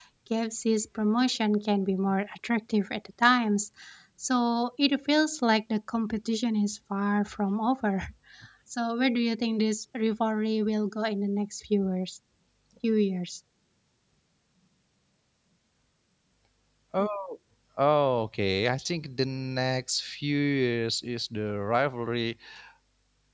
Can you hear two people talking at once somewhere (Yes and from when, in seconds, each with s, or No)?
No